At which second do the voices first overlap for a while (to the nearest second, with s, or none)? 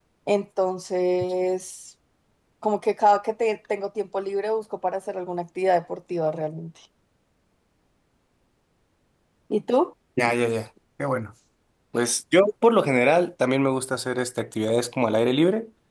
none